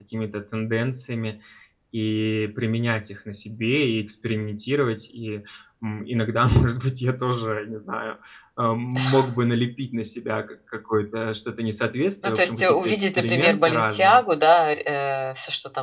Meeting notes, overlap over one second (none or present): present